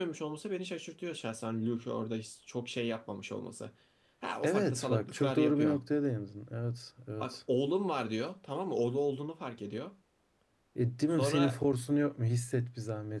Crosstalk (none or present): present